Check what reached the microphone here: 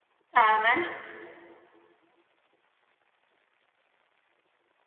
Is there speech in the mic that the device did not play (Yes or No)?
Yes